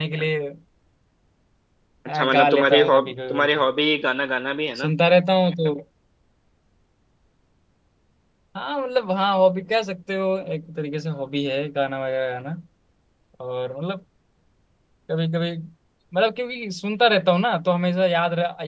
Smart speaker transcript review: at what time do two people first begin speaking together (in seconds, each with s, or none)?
2.1 s